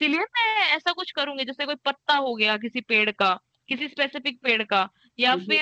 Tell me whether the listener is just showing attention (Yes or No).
Yes